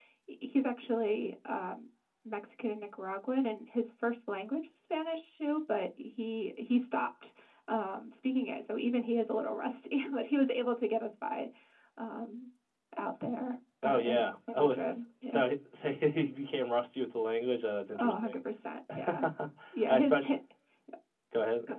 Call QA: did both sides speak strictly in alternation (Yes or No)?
No